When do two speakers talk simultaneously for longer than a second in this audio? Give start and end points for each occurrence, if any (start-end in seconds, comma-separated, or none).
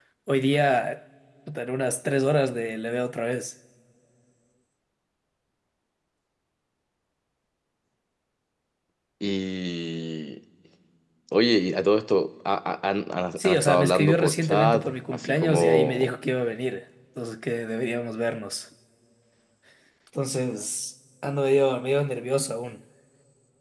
13.4-16.2